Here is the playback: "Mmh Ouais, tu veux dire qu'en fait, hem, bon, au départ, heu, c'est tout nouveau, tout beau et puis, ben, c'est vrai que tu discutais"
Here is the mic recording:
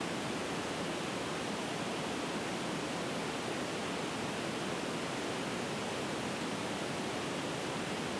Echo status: none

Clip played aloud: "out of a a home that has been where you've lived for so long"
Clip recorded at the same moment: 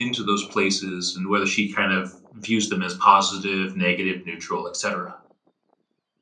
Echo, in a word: none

